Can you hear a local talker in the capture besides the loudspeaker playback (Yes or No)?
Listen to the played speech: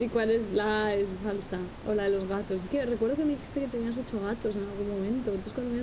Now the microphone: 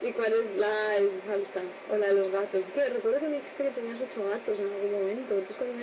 No